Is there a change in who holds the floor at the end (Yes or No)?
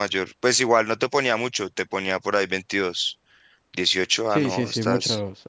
Yes